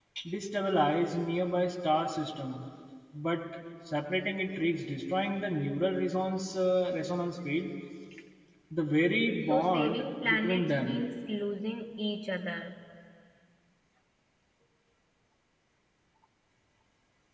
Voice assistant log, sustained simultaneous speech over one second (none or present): present